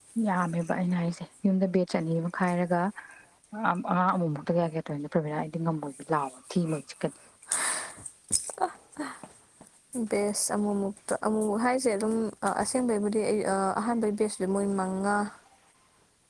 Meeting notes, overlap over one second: none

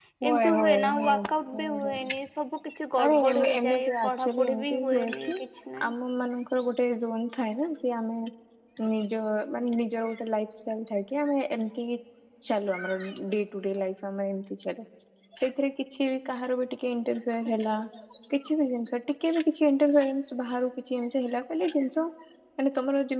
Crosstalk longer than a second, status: present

